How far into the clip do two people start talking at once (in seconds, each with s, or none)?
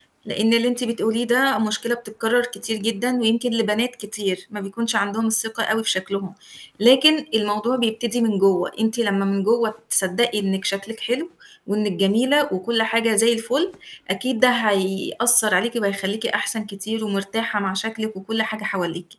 none